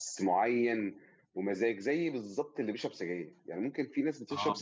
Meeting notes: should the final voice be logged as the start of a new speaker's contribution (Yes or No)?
No